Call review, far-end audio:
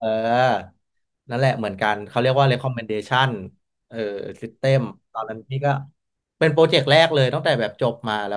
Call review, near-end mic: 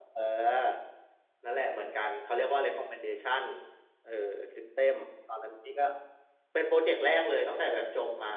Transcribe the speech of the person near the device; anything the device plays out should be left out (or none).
none